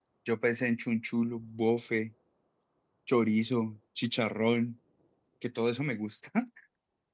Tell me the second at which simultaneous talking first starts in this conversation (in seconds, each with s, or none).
none